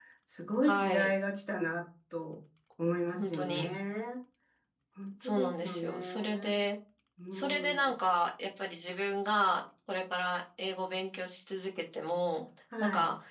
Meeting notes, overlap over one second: present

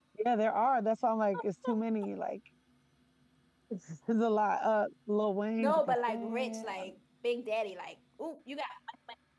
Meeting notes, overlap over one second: present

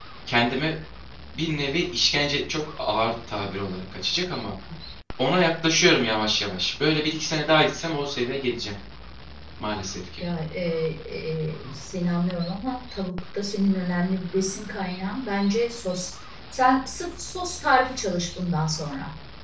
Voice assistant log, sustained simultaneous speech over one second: none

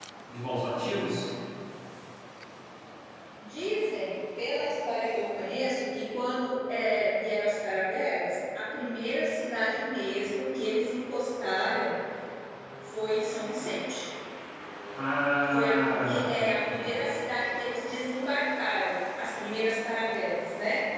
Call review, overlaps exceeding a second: present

